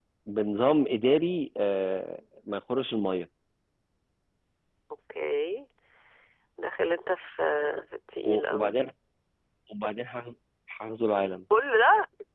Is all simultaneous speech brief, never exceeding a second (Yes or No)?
Yes